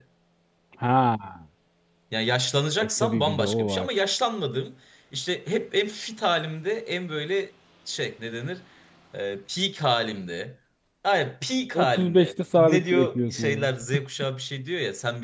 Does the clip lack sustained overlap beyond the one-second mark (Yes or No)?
No